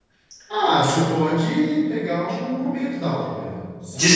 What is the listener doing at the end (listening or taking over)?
taking over